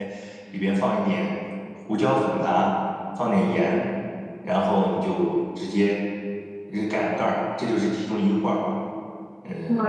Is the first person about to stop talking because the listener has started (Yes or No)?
Yes